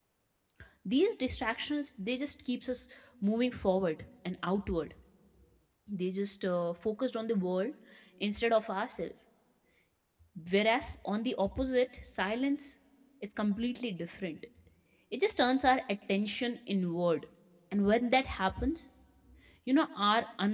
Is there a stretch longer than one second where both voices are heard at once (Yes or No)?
No